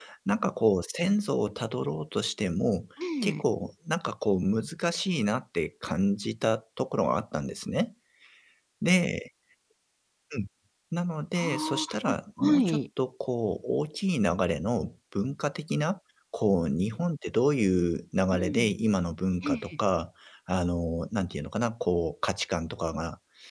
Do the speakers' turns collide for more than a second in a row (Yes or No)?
Yes